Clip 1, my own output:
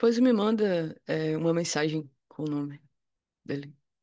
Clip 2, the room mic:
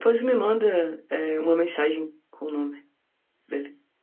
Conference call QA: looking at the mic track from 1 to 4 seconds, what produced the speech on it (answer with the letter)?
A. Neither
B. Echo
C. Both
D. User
B